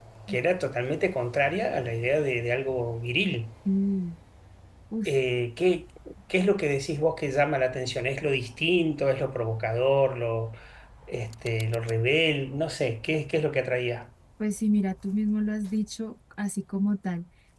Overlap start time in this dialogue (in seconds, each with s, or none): none